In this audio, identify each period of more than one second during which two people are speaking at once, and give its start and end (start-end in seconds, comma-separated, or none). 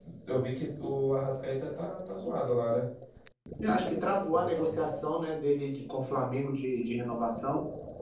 none